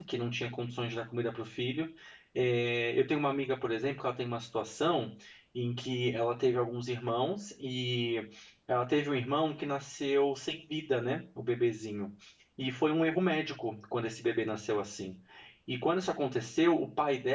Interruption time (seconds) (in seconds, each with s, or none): none